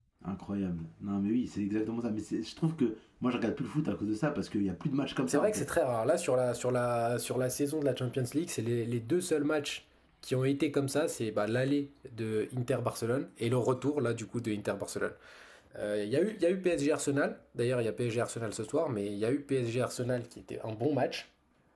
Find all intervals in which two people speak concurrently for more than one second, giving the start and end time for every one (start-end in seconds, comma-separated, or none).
none